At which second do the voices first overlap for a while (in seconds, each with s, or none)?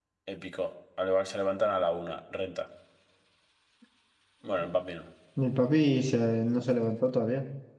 none